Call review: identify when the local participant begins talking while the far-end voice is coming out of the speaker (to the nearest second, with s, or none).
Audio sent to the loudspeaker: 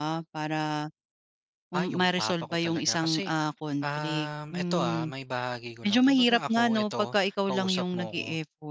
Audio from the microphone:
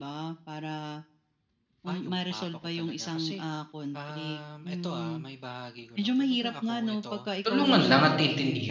7 s